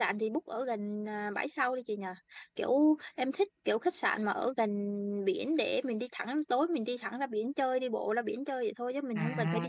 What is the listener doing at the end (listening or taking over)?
taking over